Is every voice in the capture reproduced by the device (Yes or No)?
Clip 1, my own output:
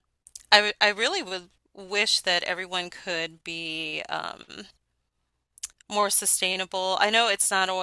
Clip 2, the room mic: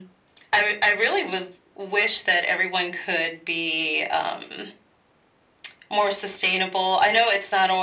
Yes